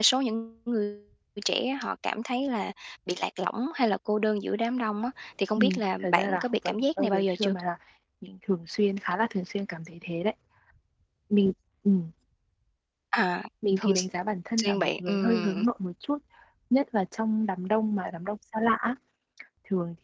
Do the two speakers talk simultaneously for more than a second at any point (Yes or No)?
Yes